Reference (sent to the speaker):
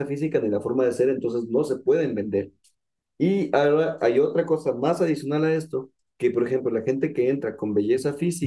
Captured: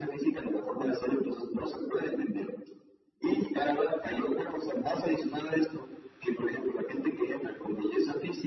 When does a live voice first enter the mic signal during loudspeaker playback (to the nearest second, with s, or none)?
none